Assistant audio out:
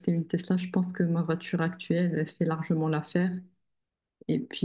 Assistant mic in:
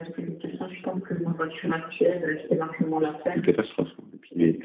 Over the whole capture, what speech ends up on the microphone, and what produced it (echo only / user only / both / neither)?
both